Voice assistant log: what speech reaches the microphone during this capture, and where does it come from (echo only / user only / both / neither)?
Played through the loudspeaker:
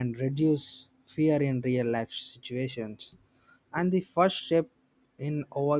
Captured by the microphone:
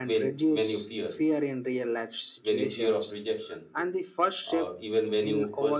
both